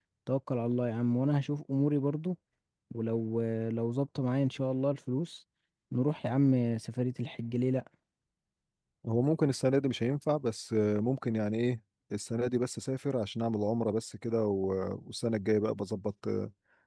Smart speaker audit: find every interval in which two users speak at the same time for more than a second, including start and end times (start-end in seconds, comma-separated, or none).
none